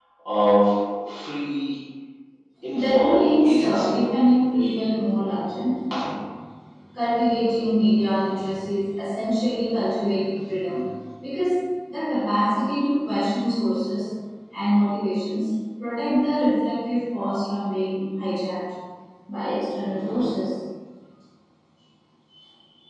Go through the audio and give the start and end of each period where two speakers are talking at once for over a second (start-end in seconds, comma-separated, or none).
2.7-4.0